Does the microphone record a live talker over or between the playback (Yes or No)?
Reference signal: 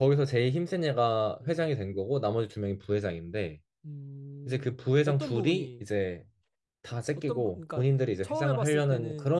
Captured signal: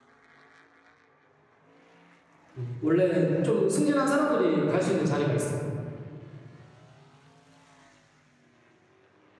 Yes